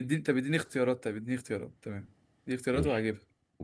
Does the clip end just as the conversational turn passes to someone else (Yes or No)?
Yes